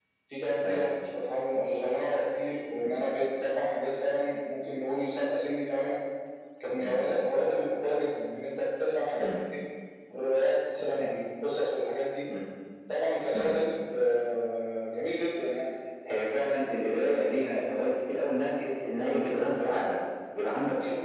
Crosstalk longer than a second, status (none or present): none